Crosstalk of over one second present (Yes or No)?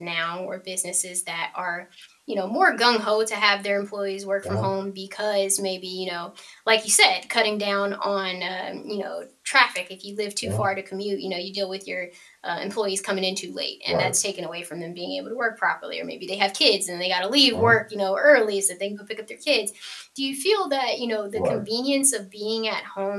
No